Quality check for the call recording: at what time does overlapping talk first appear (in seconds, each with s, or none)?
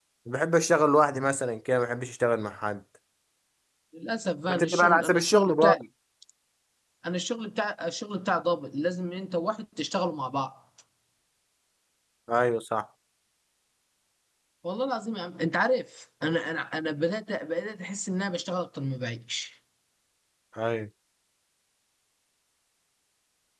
4.5 s